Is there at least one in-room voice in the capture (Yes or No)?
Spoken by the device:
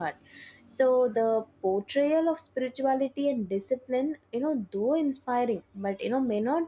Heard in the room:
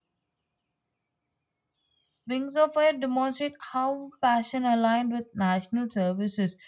Yes